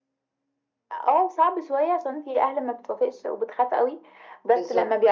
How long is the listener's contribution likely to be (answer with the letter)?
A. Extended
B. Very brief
B